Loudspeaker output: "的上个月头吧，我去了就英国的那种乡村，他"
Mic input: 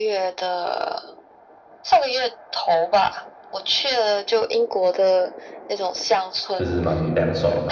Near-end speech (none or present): present